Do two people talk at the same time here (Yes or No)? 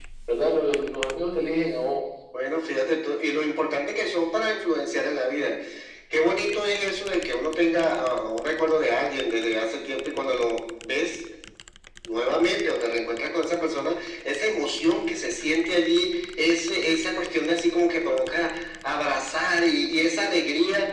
No